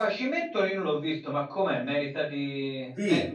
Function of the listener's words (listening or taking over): taking over